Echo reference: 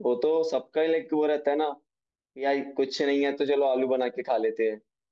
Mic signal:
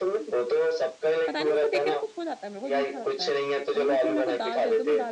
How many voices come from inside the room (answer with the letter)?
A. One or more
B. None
A